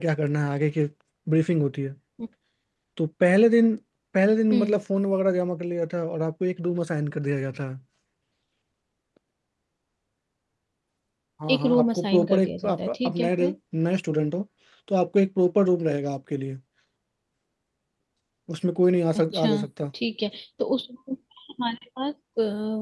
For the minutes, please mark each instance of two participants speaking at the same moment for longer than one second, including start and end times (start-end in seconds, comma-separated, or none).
11.5-13.3